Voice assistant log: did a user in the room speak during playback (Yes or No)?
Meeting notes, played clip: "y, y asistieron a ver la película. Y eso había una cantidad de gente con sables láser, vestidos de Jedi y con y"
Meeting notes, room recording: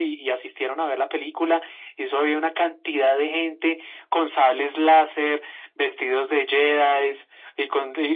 No